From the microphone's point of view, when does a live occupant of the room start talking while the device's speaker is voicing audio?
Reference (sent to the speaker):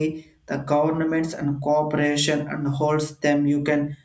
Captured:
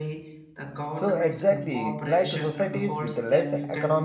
0.9 s

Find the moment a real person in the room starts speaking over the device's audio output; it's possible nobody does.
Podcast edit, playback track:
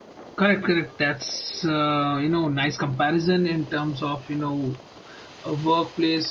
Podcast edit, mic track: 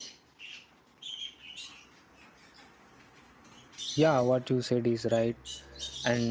3.9 s

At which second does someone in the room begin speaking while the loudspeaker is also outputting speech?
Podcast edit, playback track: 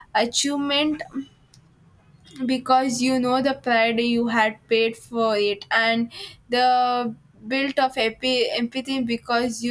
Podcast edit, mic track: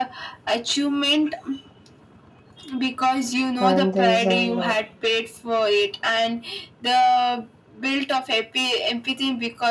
3.6 s

